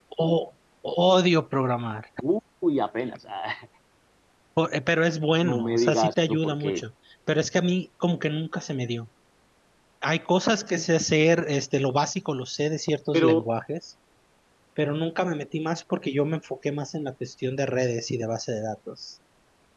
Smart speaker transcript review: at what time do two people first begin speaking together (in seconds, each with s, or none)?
5.4 s